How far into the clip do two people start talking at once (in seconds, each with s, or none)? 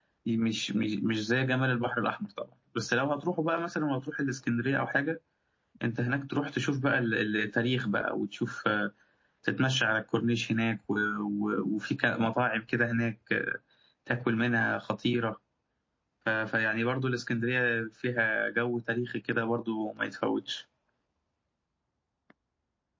none